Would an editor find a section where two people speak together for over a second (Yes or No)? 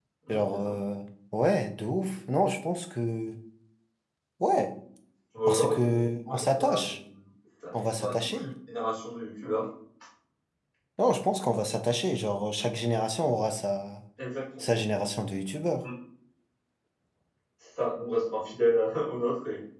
Yes